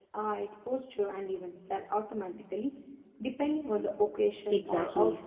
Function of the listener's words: taking over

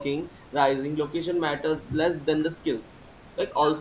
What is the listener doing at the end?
listening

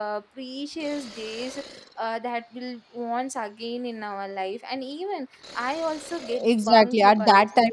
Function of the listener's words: taking over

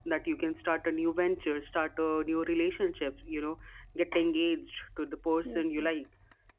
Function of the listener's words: listening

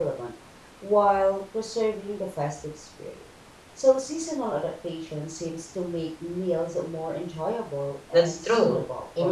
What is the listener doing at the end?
taking over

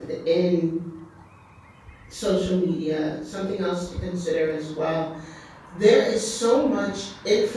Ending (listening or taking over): listening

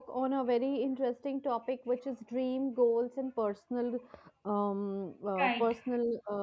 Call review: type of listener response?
listening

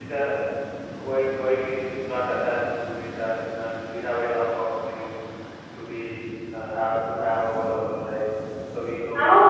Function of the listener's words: taking over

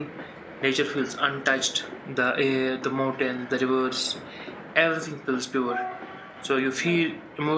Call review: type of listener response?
listening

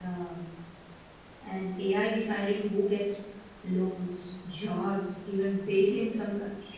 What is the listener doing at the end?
listening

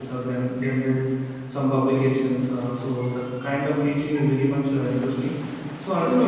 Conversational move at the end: listening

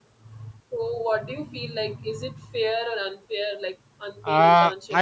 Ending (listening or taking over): taking over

